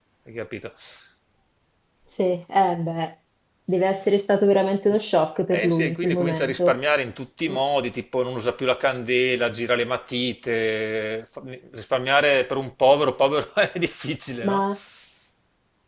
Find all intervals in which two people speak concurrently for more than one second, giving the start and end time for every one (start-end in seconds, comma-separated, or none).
5.5-6.7